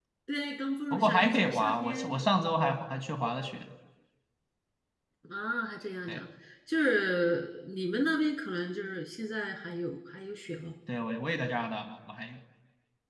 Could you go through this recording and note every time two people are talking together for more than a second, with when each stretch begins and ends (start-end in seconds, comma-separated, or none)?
0.9-2.2